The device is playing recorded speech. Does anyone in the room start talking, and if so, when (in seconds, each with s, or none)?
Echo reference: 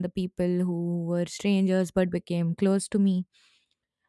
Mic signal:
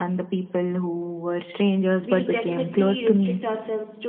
2.0 s